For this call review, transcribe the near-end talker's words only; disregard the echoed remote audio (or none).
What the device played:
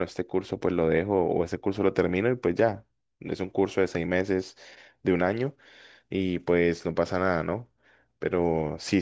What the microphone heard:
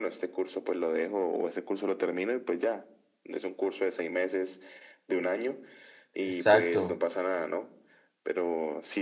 Exacto.